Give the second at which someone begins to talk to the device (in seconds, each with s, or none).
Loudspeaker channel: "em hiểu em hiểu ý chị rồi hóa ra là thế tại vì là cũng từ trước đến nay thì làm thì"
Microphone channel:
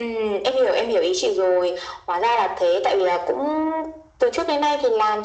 none